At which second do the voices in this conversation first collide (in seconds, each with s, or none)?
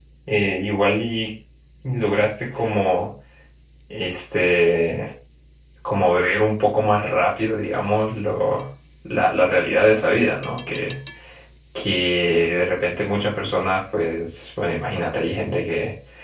none